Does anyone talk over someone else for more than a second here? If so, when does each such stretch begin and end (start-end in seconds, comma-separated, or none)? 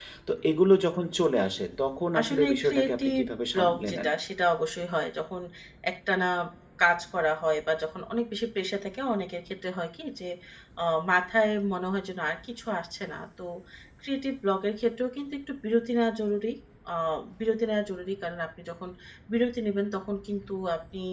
2.2-4.1